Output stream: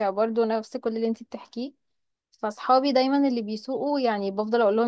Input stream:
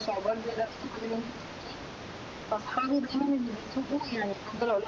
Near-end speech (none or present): none